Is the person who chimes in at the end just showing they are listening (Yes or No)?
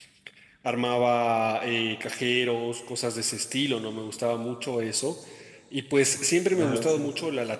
Yes